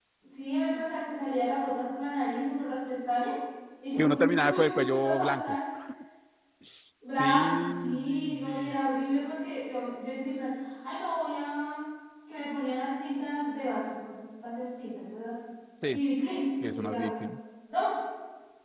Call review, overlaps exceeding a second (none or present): present